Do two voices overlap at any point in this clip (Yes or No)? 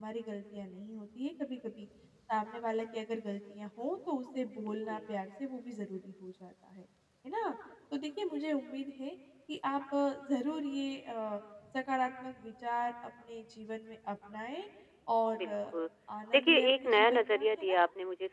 Yes